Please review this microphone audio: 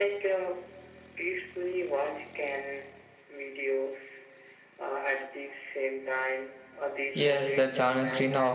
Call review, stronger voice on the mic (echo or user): user